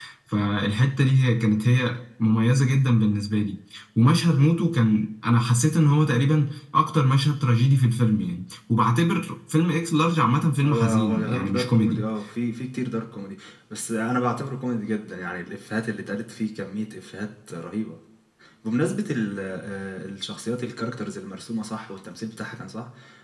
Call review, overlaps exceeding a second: present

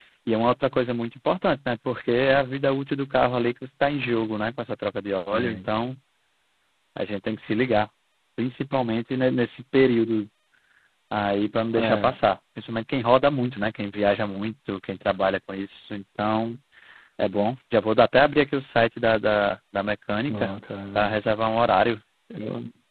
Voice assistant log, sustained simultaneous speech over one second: none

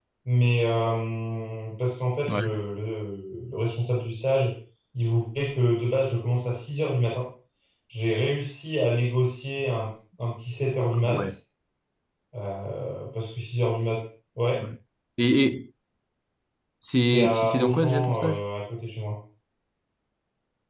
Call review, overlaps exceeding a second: present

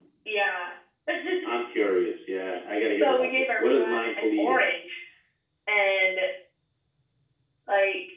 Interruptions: present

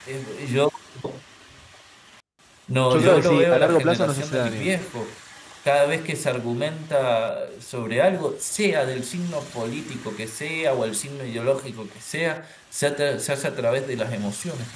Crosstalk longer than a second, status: present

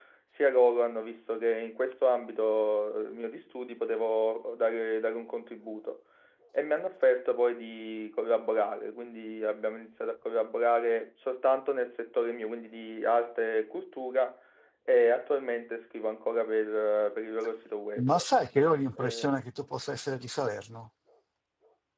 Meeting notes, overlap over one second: none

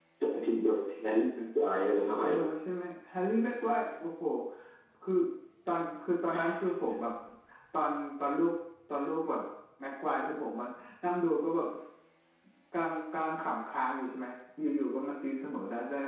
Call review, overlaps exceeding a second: none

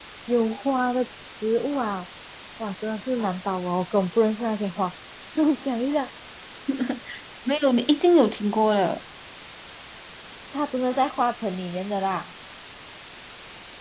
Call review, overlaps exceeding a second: none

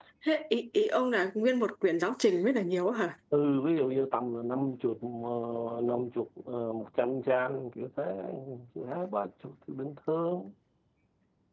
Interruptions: none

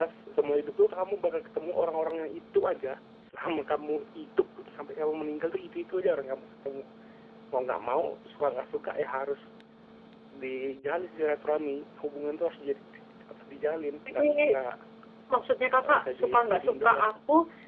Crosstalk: present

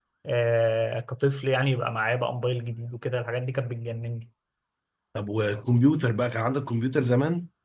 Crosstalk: none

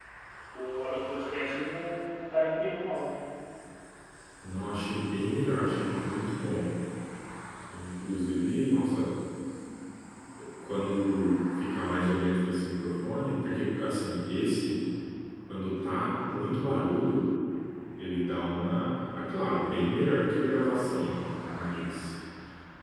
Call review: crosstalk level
none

